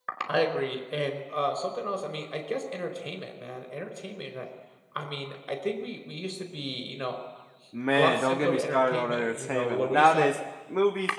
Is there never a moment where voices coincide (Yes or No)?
No